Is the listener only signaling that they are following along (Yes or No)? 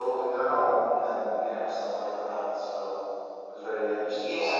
No